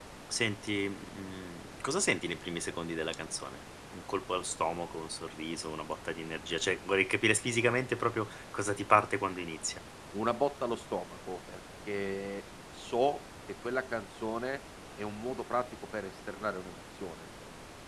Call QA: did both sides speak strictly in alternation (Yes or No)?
Yes